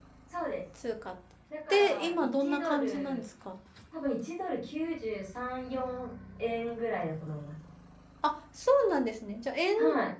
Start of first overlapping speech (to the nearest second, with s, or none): 2 s